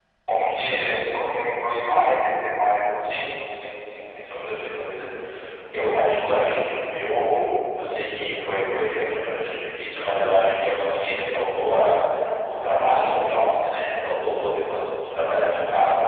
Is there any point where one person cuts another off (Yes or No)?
No